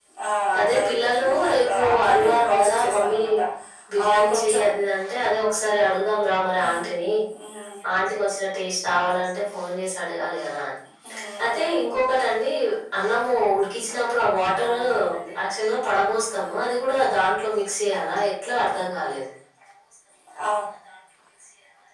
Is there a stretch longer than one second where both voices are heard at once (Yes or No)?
Yes